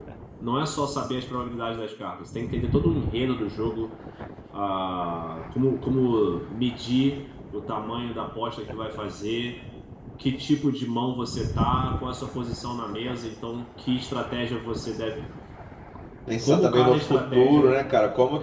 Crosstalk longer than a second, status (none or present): present